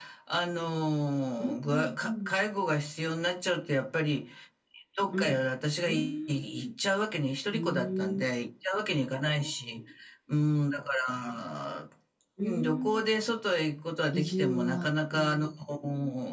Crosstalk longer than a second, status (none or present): present